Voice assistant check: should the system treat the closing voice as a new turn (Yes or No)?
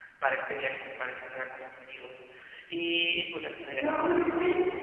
Yes